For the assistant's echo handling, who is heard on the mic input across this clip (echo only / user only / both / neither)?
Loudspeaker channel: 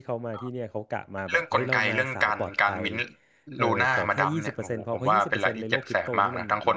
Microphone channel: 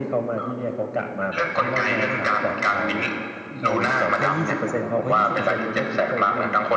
echo only